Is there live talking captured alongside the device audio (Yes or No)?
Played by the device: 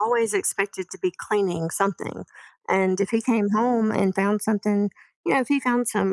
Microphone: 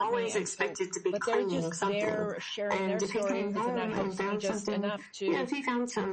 Yes